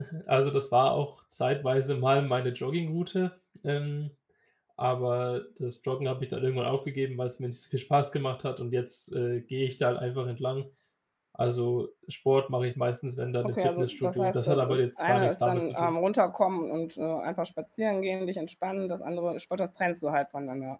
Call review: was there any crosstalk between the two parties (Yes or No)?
Yes